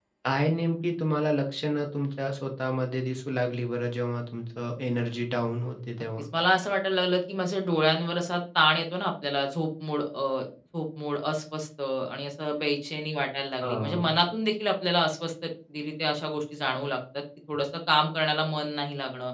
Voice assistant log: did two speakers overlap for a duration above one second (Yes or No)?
No